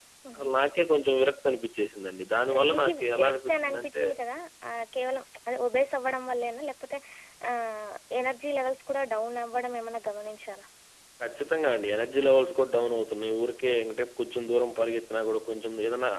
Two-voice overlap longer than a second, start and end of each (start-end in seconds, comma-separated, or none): 2.5-4.0